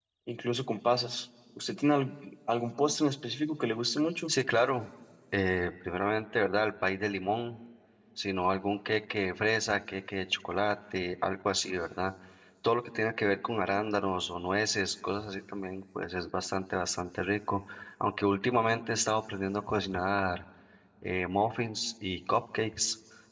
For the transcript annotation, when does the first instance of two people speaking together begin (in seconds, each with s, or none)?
none